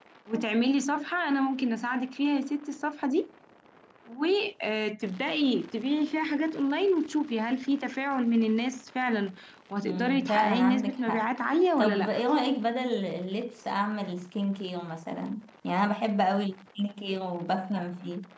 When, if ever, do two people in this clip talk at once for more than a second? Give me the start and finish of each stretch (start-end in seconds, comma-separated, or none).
9.8-11.2